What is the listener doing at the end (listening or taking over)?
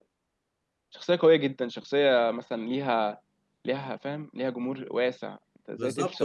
taking over